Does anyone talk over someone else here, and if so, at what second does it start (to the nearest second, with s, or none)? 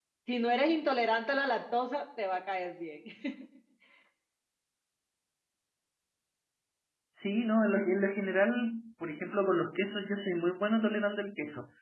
none